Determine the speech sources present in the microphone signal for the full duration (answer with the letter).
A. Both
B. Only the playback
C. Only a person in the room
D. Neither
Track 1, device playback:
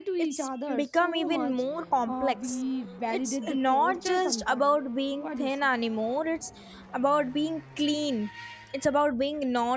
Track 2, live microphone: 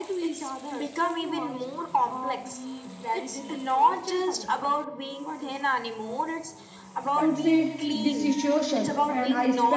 A